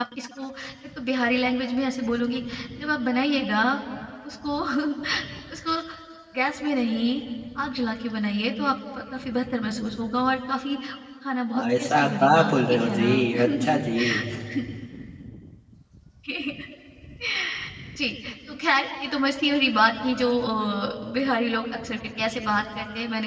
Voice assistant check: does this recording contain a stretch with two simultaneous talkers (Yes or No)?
Yes